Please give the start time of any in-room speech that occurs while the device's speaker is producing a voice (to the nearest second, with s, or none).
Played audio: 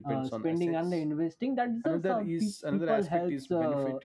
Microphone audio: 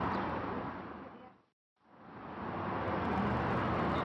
none